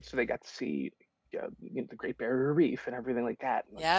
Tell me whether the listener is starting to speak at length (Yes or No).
Yes